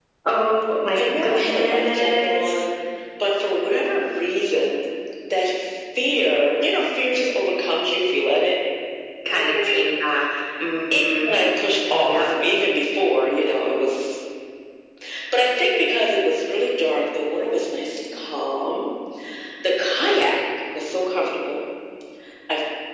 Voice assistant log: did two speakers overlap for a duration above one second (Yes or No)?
Yes